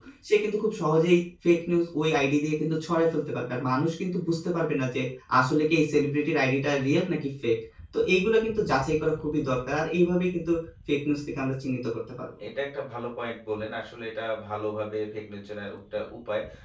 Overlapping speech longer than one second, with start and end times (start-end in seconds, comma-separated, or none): none